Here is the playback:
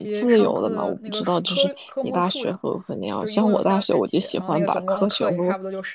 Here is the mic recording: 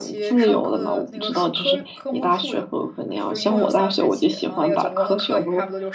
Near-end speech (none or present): none